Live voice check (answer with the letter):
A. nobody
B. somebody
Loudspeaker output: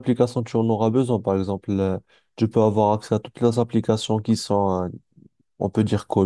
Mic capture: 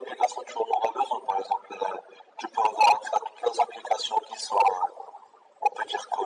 A